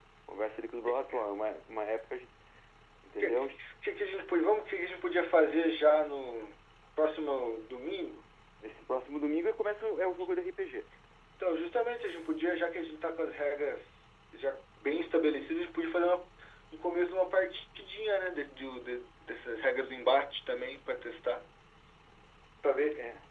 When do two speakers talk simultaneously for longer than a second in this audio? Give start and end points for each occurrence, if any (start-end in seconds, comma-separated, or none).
none